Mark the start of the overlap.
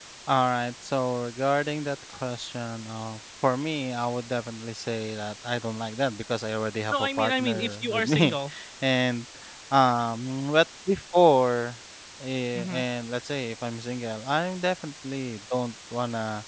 6.9 s

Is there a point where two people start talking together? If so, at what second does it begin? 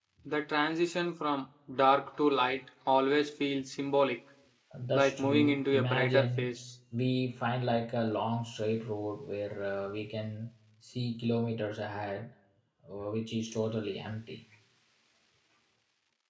4.9 s

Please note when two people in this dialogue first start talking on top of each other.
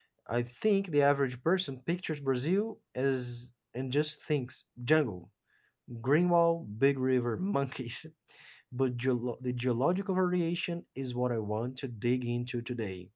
none

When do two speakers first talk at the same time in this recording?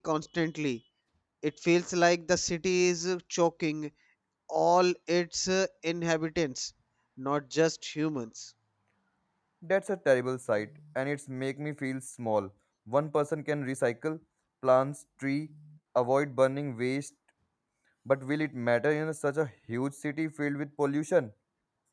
none

